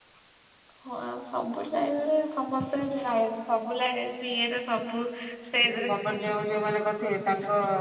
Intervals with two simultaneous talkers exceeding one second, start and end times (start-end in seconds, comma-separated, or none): none